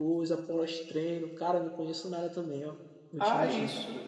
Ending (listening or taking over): taking over